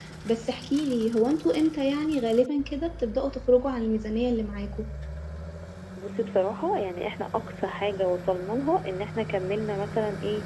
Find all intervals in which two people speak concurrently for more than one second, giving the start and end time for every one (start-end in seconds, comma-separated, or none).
none